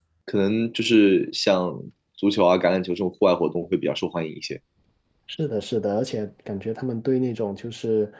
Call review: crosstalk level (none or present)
none